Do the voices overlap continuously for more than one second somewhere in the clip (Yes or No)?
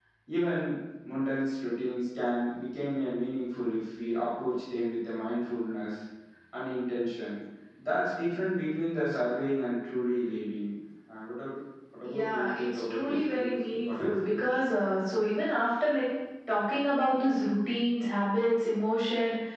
Yes